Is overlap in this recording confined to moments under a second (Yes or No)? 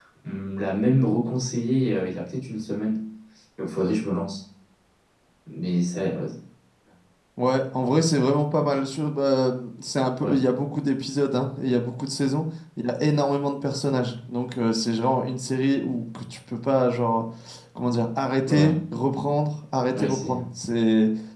Yes